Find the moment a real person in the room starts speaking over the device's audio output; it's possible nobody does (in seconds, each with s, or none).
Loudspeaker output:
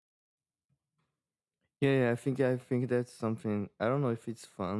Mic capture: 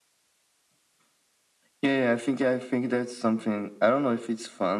none